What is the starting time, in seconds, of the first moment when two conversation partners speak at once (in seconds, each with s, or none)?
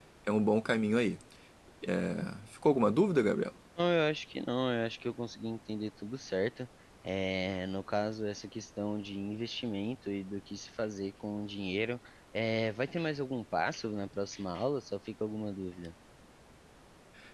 none